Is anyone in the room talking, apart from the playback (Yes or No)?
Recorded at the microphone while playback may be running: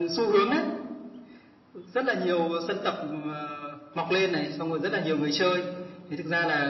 No